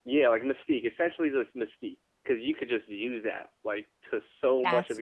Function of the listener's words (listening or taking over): listening